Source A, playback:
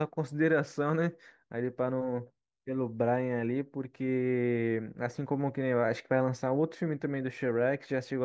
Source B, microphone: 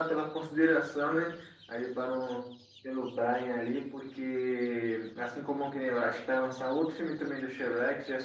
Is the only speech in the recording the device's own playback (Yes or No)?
Yes